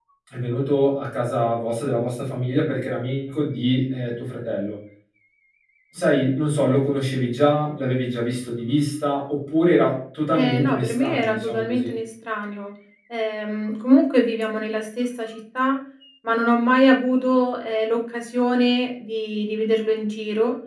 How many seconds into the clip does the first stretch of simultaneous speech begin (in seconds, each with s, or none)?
10.3 s